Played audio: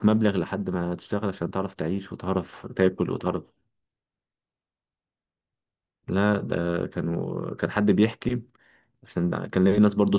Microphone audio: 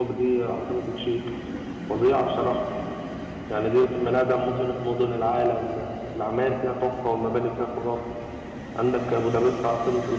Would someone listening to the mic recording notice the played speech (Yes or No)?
No